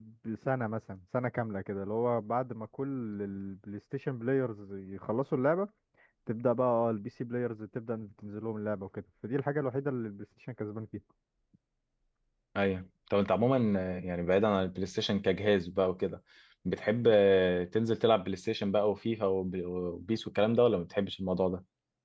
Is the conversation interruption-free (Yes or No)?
Yes